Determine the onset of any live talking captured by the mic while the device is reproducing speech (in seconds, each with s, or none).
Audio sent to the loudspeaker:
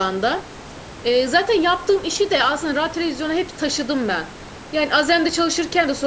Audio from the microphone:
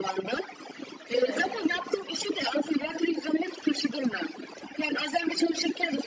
1.1 s